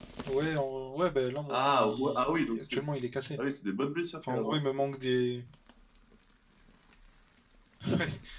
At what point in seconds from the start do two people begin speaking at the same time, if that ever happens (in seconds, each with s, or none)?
1.5 s